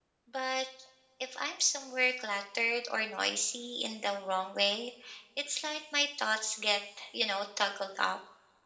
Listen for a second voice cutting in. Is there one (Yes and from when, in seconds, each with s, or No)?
No